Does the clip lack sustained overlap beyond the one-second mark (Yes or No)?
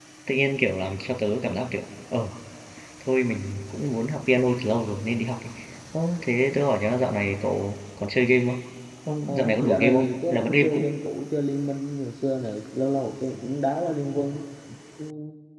No